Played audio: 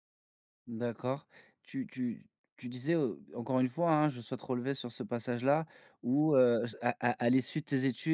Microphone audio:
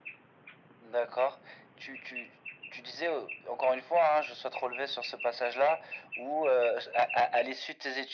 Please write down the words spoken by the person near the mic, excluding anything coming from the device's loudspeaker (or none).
none